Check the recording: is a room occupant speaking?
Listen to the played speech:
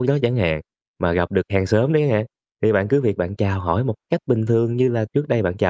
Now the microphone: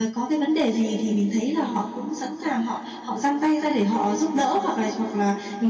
Yes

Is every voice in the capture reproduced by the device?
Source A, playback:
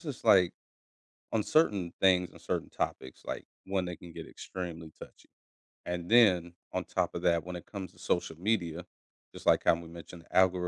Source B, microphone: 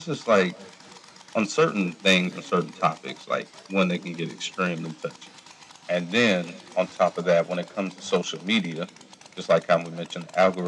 Yes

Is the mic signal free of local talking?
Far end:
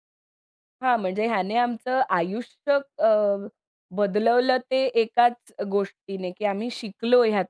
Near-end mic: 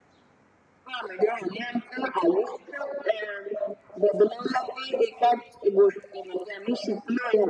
Yes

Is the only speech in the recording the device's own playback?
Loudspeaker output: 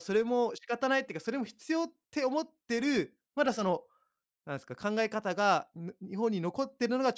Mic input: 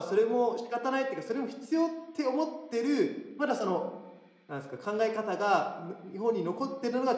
Yes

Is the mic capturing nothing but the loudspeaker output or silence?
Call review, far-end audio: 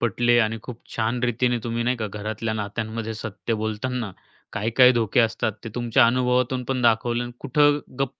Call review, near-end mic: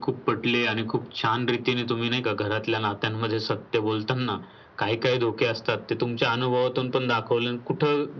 Yes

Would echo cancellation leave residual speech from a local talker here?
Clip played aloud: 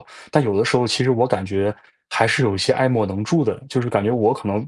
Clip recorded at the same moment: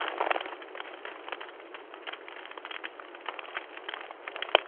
No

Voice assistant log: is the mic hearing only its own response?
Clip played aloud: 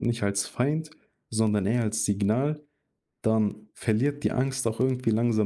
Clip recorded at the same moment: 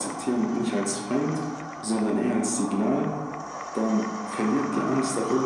Yes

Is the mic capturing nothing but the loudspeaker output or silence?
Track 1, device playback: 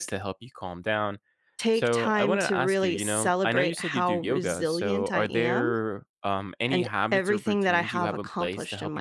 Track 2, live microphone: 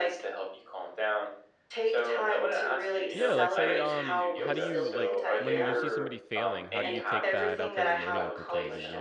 No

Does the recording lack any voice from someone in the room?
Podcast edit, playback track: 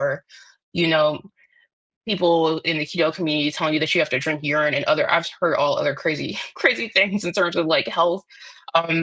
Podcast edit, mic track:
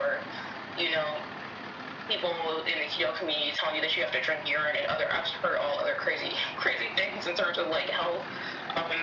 Yes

